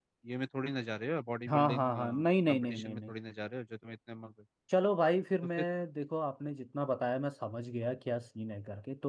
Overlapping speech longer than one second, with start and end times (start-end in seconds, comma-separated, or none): 1.5-3.1